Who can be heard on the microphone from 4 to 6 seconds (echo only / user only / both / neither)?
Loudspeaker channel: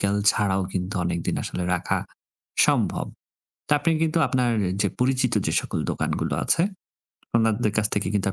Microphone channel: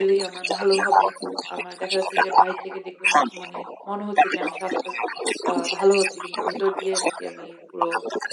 both